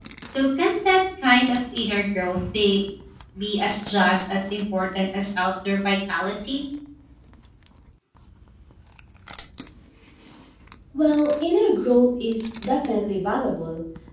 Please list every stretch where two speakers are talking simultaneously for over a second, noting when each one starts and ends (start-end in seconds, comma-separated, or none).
none